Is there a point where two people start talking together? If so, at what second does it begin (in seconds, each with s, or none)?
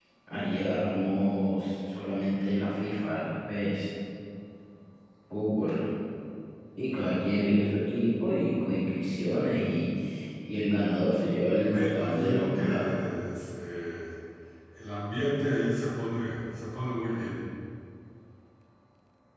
11.5 s